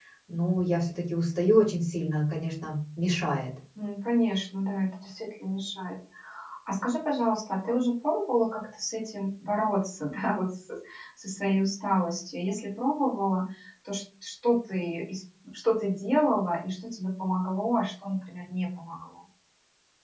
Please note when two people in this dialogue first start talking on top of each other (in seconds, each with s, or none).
none